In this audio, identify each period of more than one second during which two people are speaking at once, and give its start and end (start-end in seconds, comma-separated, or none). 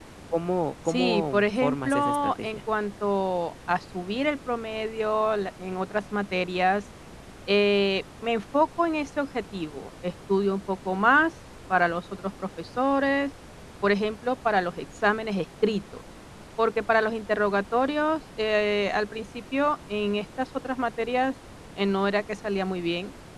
0.9-2.6